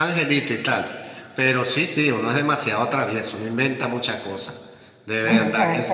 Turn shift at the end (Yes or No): Yes